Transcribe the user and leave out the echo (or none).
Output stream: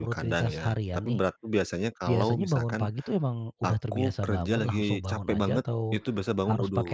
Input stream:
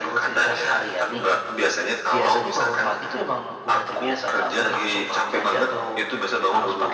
none